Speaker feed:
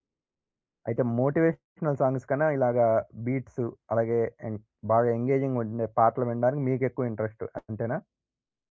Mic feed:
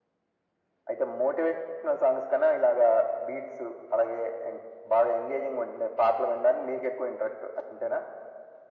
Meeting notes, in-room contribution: none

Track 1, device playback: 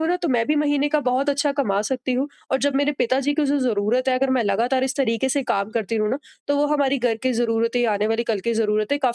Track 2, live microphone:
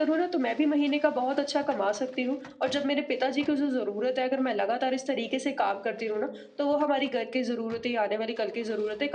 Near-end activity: none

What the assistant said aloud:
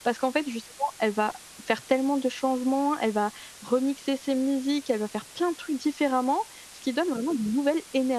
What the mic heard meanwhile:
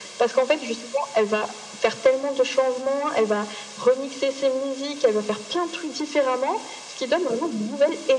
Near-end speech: none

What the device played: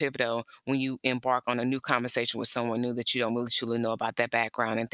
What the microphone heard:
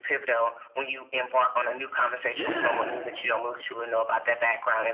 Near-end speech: present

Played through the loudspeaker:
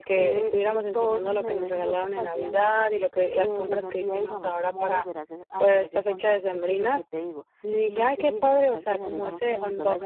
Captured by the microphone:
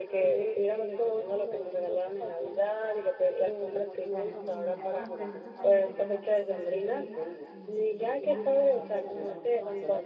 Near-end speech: present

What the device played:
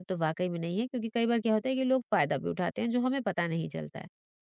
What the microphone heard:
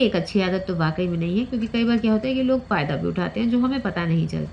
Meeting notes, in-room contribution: none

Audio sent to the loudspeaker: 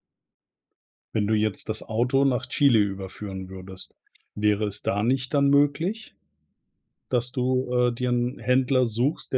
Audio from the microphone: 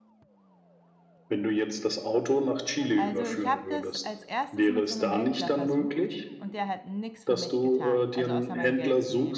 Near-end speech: present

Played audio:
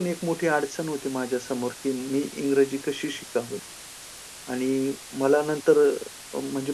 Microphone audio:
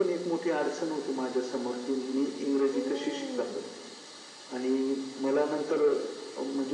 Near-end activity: present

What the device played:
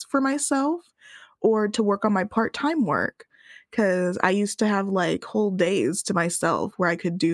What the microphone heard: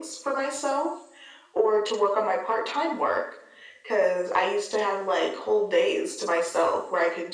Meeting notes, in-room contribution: none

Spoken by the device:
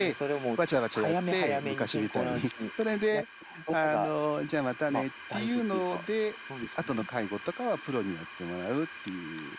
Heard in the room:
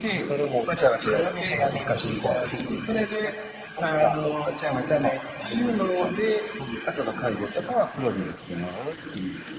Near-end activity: none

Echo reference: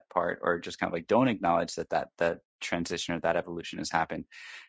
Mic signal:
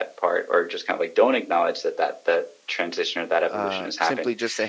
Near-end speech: present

